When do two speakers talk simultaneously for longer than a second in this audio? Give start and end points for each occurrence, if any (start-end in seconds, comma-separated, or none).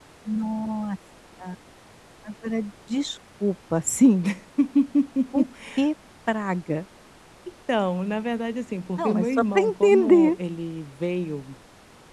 9.0-10.4